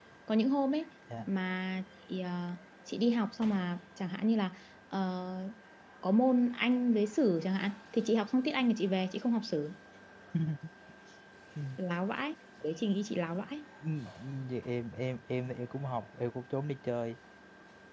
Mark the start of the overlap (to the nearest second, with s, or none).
none